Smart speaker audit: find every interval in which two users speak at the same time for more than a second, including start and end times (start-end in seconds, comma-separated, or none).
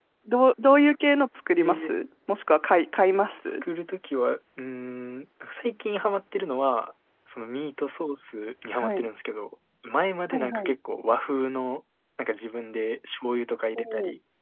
none